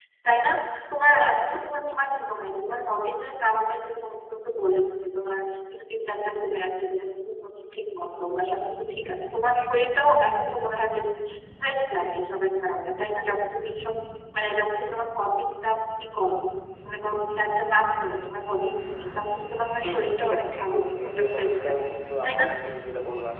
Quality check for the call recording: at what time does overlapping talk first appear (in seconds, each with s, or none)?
19.8 s